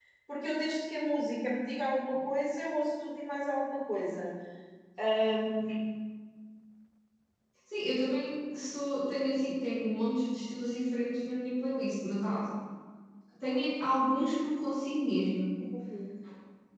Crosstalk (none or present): none